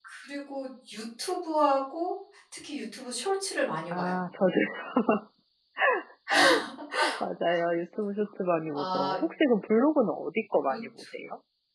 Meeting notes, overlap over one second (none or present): none